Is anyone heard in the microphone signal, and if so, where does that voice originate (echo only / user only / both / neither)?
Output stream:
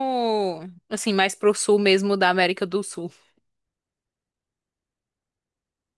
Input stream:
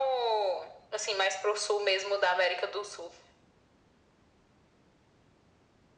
echo only